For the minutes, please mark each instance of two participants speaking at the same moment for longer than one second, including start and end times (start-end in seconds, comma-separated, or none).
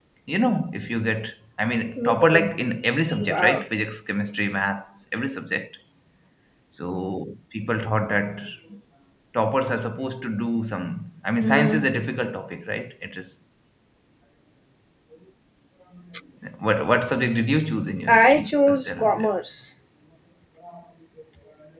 18.1-19.3